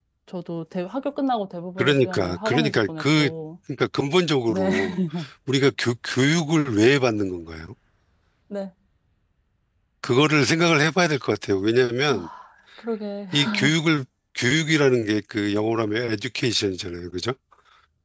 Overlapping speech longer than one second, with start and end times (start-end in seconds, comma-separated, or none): 1.8-3.3